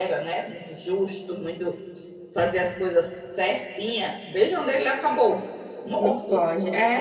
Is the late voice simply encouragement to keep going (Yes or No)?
No